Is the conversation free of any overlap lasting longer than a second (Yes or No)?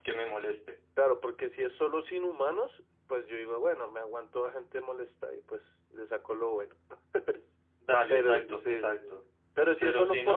No